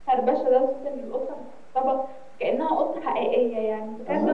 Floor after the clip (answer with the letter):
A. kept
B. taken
B